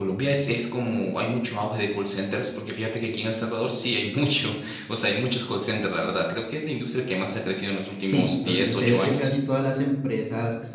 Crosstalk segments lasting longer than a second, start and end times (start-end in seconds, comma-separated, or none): 8.0-9.3